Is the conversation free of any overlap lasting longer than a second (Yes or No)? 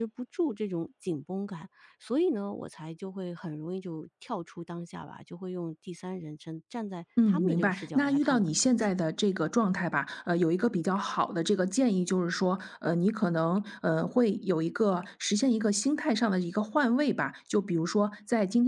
No